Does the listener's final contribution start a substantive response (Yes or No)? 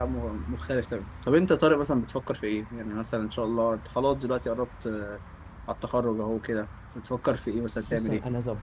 Yes